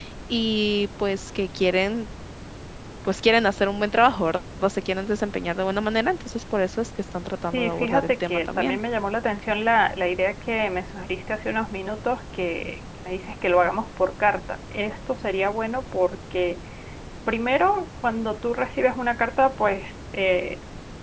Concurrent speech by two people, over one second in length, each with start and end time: 7.5-8.8

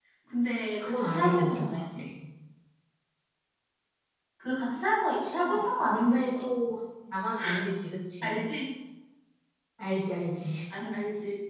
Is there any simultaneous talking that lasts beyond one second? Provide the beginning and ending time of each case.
0.8-2.0, 5.2-6.4

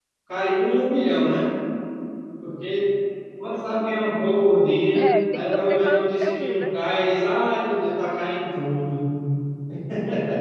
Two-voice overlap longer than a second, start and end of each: 5.0-6.7

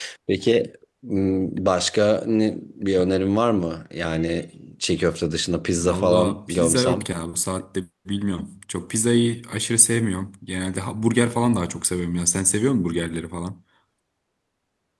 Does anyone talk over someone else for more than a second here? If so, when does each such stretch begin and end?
5.8-7.1

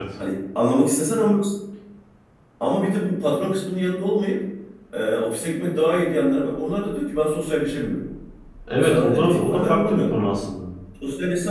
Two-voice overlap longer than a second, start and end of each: 8.8-10.1

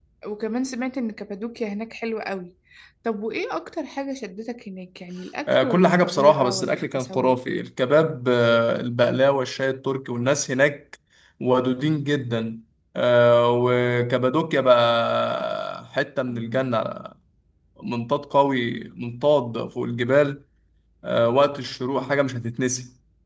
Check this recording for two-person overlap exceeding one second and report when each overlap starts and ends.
5.5-7.4

